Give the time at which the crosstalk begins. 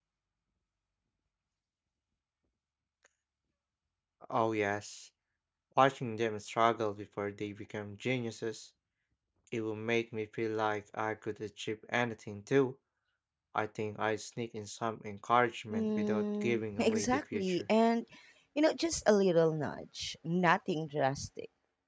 15.7 s

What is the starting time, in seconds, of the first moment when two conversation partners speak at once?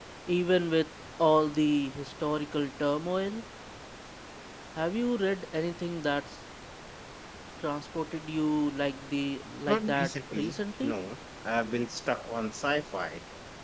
9.7 s

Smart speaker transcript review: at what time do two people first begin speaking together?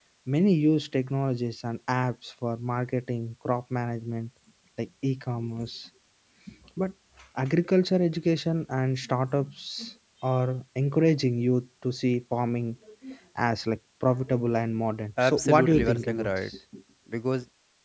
15.2 s

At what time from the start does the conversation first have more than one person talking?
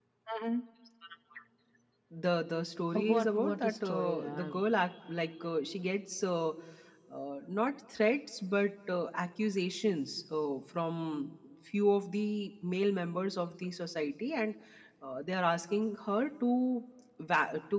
2.9 s

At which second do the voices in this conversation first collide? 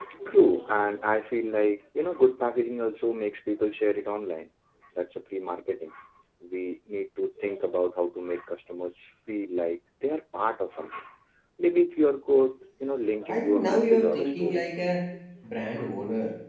13.3 s

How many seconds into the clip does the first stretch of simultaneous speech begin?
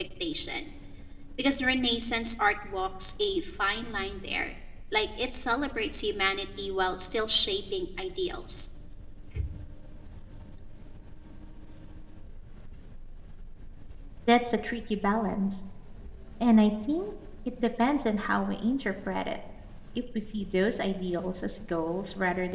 none

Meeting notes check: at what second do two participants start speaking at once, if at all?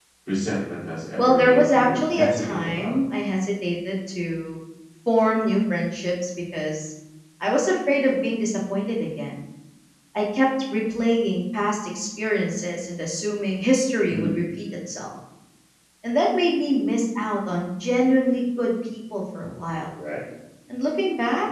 1.2 s

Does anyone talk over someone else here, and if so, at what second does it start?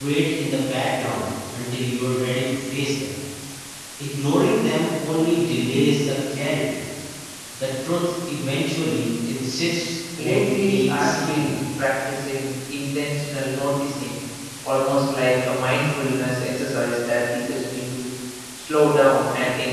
10.2 s

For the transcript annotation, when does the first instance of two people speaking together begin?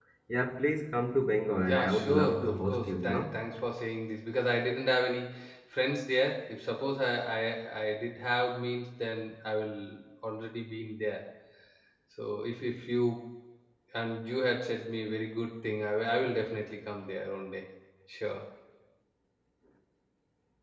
1.7 s

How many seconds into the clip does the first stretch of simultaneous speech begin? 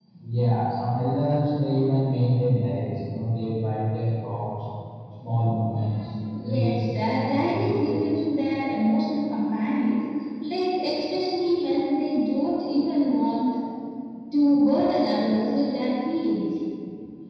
6.3 s

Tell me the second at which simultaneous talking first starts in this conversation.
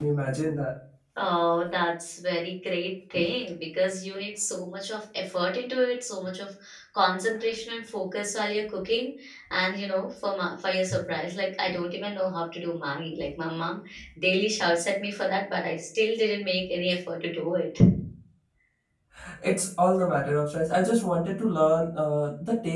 none

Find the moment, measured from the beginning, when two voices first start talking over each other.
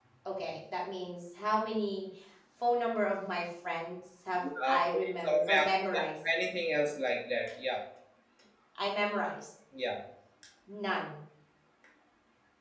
4.4 s

